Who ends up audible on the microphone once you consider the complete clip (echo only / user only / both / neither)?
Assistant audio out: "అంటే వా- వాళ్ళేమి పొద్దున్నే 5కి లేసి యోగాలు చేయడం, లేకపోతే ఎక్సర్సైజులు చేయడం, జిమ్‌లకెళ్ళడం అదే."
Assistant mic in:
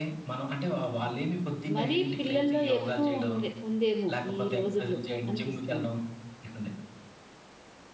both